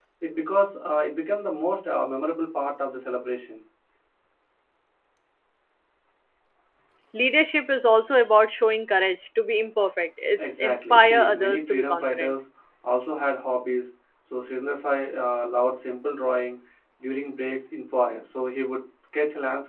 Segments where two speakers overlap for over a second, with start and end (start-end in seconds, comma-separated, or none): 10.4-12.4